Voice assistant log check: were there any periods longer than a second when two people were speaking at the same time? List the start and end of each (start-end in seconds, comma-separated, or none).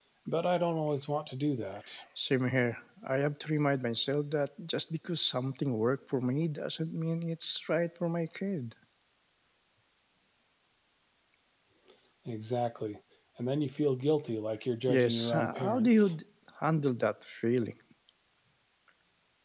14.9-16.1